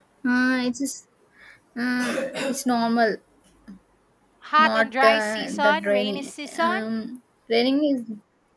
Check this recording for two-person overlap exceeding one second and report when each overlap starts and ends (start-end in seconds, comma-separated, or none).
4.6-6.8